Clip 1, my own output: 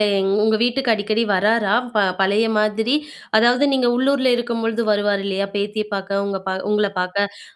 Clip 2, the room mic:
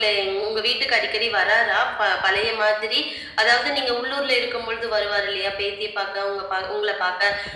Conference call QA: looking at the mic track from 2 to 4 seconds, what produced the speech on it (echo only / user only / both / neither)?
echo only